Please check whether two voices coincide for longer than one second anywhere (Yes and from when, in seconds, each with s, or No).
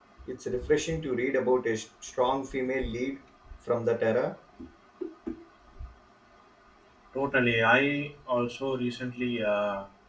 No